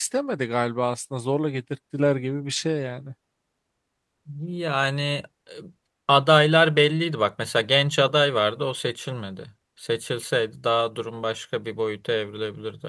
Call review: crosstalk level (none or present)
none